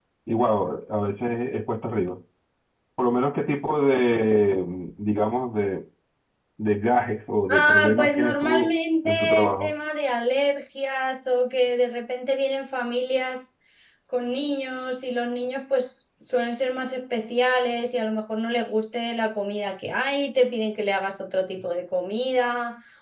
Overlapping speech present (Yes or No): Yes